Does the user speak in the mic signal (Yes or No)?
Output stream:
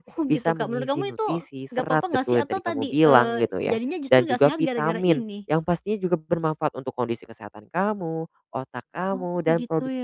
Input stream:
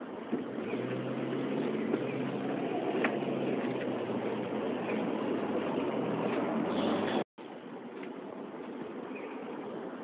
No